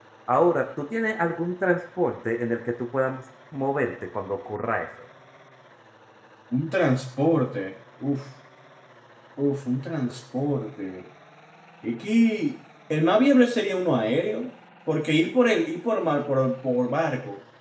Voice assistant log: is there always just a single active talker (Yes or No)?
Yes